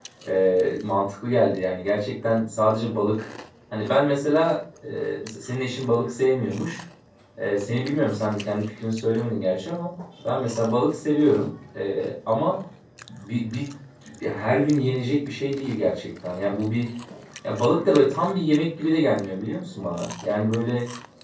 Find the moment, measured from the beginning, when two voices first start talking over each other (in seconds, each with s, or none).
none